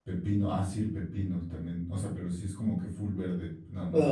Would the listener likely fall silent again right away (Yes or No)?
No